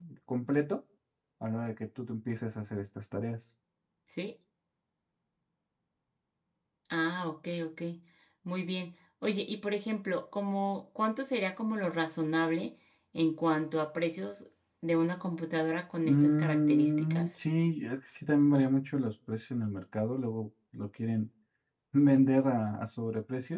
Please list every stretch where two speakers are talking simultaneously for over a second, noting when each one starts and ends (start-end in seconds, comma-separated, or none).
16.0-17.3